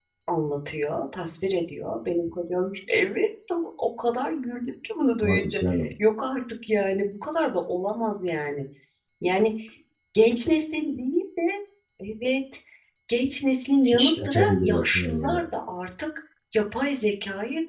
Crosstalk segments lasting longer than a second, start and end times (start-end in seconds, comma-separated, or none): 14.0-15.4